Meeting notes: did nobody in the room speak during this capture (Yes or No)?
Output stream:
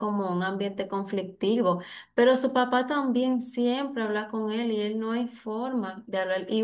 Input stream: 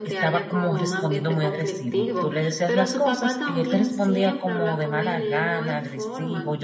No